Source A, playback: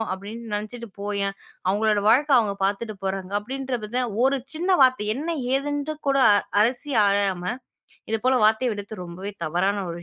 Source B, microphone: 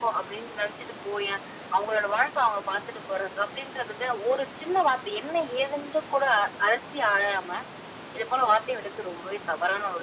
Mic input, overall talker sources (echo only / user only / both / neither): echo only